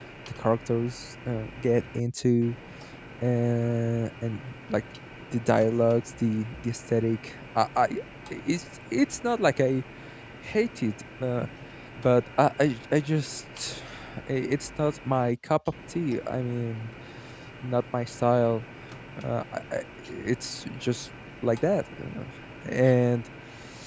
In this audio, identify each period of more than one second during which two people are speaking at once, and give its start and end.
none

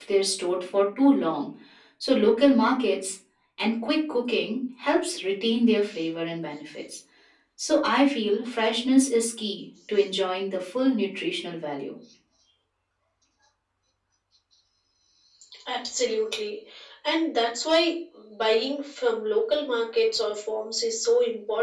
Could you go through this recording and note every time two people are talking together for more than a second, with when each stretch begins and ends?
none

